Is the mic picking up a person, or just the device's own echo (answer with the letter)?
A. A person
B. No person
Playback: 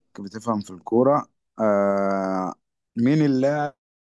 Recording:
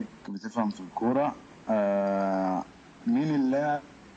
B